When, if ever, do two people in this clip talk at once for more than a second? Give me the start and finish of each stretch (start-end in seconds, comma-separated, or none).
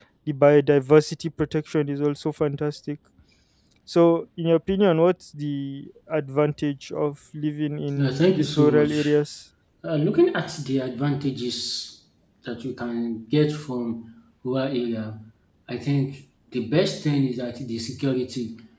8.0-9.2